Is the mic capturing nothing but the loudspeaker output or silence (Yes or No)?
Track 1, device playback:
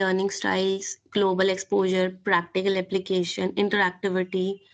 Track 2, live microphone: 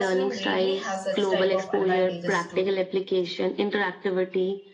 No